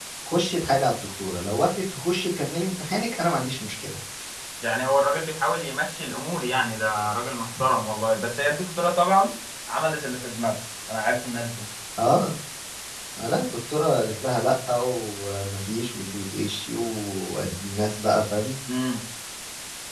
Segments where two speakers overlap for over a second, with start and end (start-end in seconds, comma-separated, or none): none